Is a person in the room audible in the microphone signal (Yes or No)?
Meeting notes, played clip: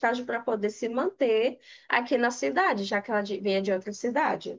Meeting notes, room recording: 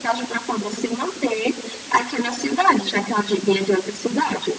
No